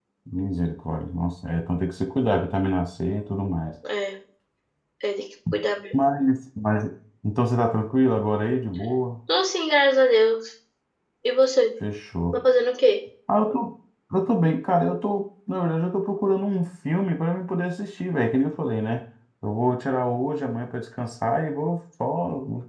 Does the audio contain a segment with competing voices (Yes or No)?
No